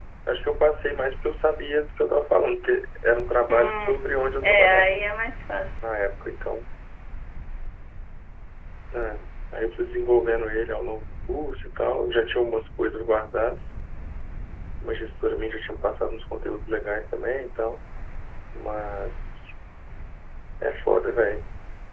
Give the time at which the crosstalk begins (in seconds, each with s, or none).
3.5 s